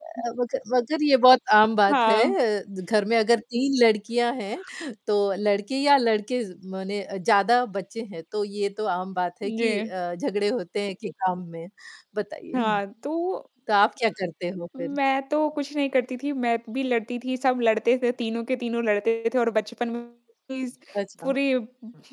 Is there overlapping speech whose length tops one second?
No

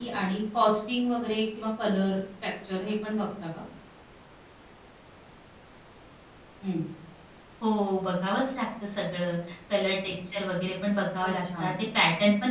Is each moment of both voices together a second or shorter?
Yes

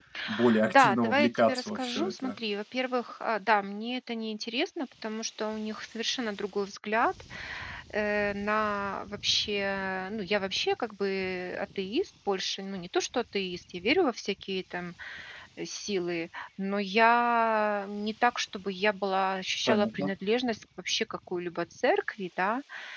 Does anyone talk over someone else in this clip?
Yes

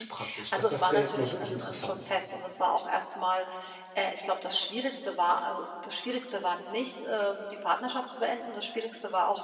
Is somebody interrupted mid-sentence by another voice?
Yes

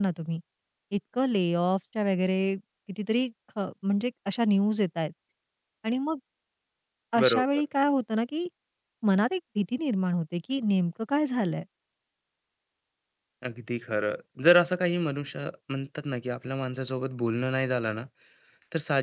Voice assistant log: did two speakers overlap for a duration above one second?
No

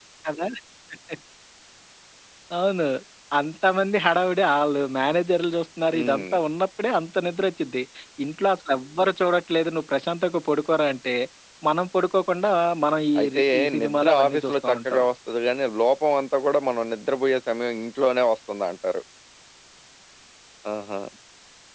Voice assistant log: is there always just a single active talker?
No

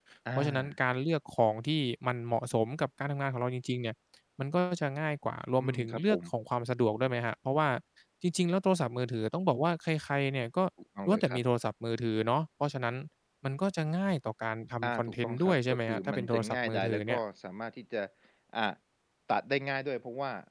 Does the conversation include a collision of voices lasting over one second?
Yes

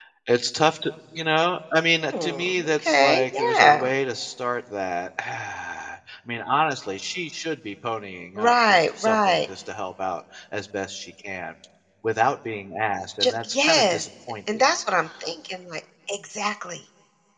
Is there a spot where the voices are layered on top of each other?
Yes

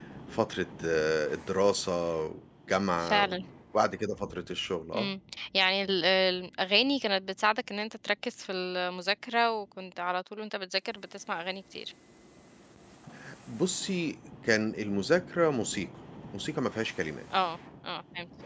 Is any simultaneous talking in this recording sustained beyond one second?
No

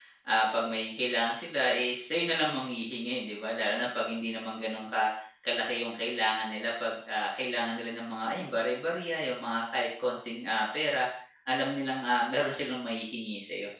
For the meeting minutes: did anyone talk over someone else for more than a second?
No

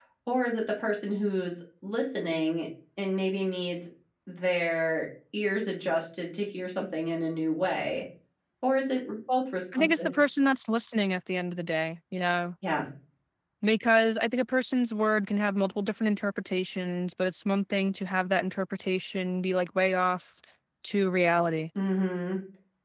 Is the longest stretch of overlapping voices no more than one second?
Yes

